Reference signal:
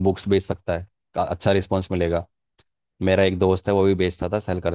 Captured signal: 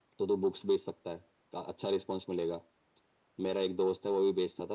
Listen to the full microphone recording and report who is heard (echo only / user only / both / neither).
echo only